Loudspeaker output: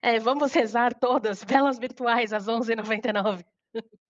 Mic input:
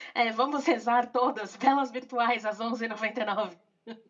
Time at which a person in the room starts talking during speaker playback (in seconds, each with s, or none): none